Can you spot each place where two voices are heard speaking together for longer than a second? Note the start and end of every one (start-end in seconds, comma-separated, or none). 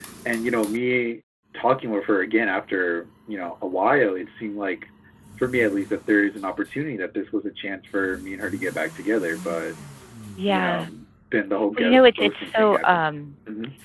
11.8-13.0